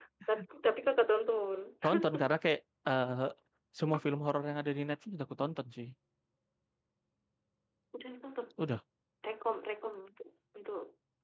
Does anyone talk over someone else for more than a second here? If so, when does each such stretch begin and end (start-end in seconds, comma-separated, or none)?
none